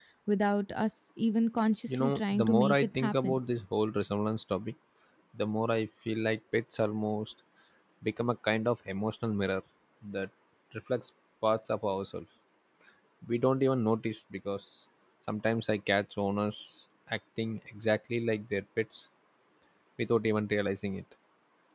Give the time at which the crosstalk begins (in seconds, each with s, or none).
1.9 s